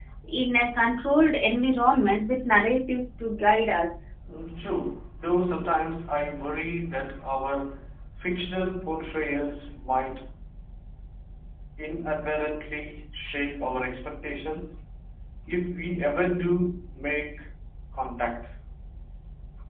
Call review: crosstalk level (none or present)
none